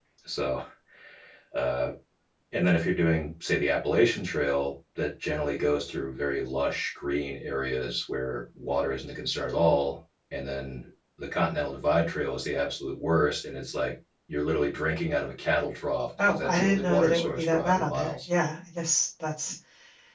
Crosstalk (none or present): present